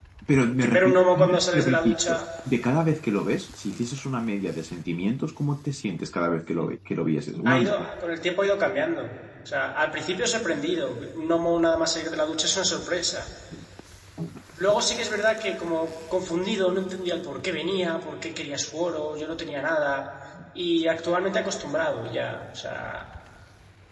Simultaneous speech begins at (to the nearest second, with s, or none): 1 s